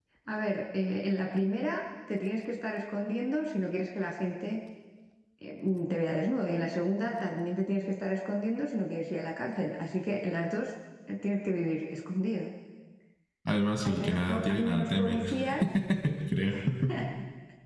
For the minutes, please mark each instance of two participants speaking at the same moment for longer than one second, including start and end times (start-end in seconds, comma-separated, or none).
13.8-15.2